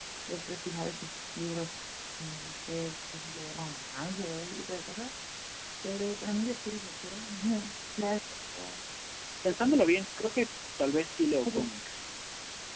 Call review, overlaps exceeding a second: none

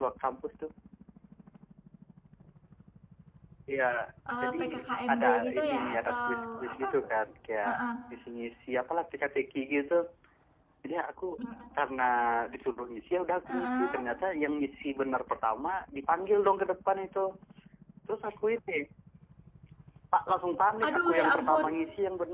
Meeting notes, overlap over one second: present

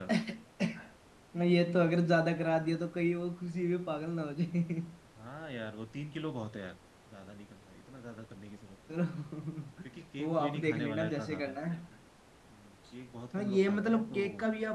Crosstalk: present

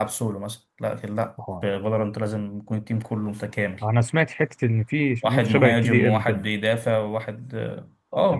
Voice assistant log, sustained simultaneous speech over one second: present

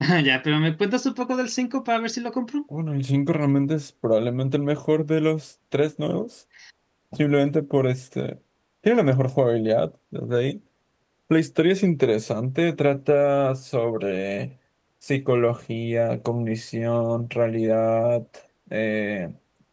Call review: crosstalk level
none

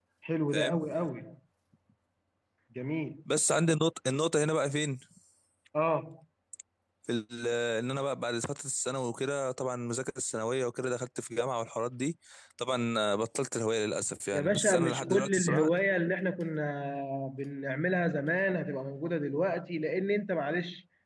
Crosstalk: present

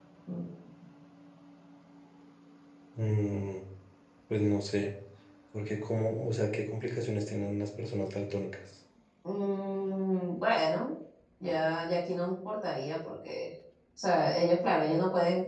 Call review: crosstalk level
none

